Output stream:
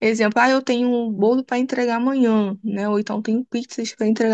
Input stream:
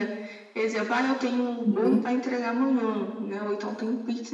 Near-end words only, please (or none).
Uhum.